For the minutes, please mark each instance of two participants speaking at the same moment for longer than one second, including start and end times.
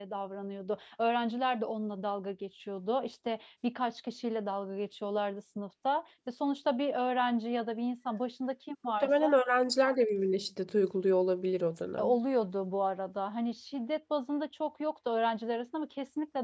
none

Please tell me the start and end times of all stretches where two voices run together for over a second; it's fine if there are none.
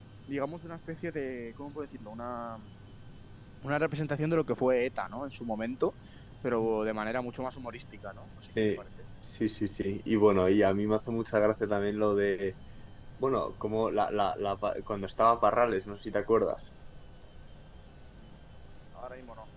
none

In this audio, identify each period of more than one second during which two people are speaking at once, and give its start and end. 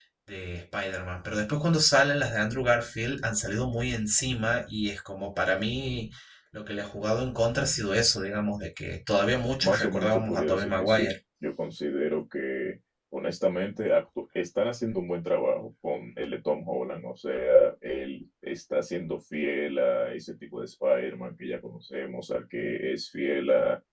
9.6-11.0

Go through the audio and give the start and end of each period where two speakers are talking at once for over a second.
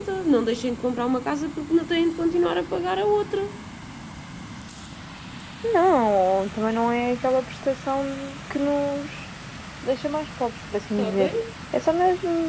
none

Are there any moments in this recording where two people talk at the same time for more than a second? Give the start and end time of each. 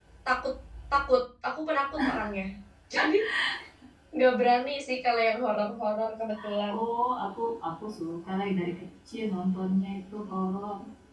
none

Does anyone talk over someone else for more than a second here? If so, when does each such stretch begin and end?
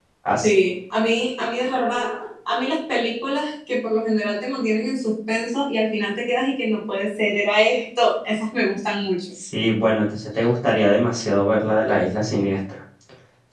none

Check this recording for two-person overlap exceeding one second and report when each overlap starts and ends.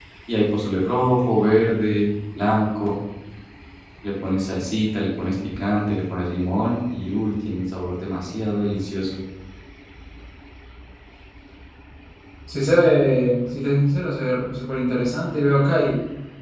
none

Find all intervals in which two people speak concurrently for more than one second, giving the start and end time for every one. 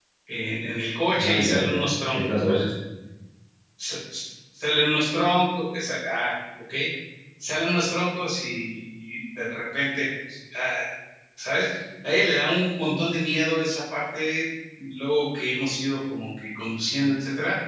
1.2-2.6

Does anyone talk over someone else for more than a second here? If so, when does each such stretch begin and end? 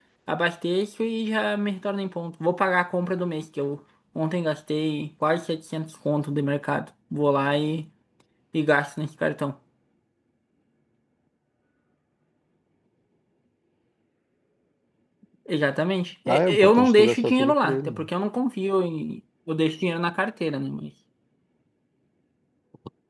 16.3-18.1

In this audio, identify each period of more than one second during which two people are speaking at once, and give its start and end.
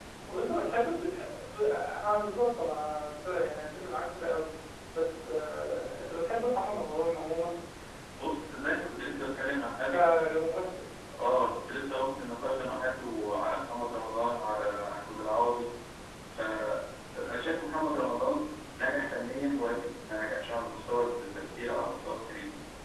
none

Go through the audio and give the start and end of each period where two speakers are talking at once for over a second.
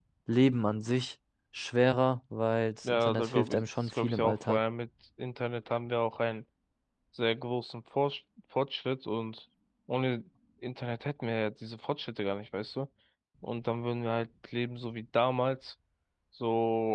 2.8-4.6

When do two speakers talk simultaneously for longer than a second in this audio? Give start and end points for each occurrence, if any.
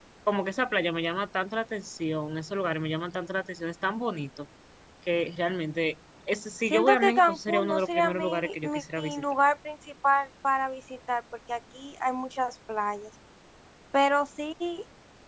6.6-9.2

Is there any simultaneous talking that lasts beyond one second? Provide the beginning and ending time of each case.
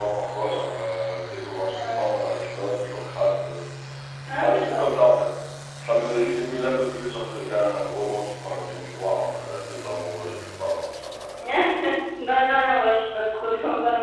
none

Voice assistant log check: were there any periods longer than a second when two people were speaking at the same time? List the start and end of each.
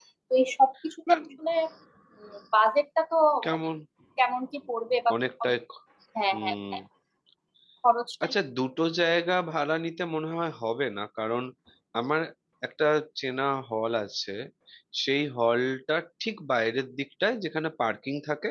none

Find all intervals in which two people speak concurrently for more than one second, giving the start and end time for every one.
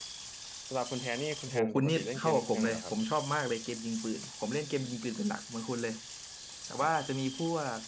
1.5-2.9

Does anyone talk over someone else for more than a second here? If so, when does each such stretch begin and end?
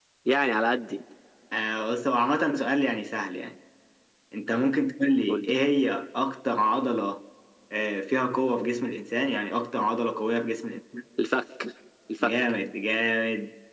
none

